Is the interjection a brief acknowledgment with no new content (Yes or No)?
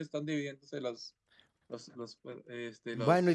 No